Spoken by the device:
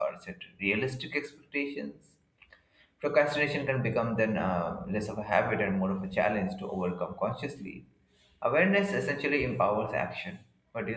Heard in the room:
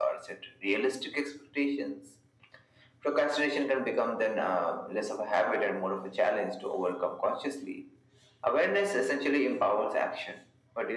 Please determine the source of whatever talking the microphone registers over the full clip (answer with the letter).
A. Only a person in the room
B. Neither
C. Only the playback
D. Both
C